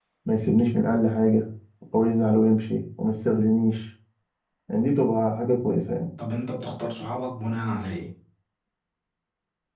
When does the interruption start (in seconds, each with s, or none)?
none